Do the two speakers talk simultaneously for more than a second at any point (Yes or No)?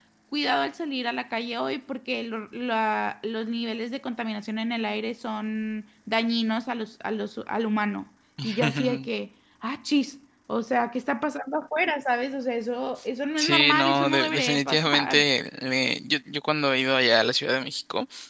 Yes